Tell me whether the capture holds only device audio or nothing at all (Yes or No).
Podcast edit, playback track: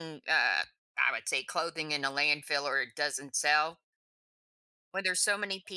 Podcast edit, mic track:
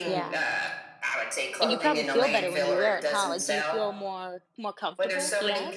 No